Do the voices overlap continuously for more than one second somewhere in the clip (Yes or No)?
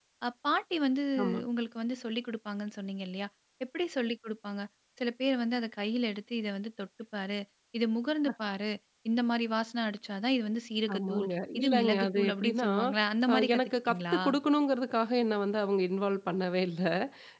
Yes